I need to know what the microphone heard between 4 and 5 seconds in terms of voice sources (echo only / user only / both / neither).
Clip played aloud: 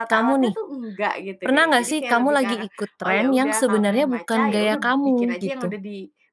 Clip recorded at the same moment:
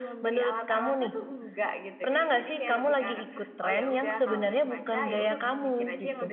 echo only